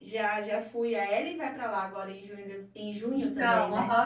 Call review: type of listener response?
taking over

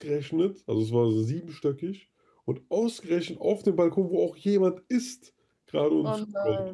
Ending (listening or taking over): listening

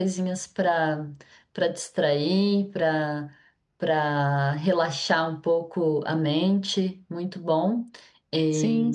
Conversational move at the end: listening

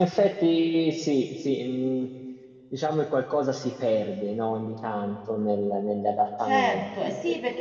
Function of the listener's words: taking over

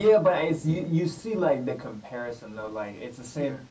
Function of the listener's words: listening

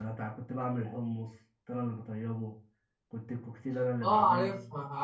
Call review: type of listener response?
taking over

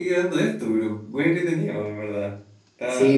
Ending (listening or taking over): taking over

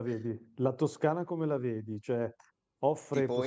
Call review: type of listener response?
taking over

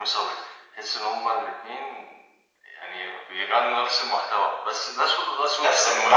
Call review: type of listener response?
taking over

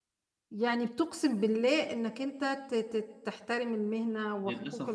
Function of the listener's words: taking over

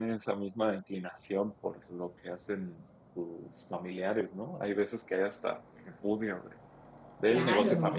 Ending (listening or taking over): listening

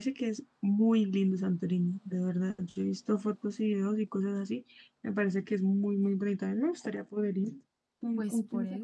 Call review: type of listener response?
taking over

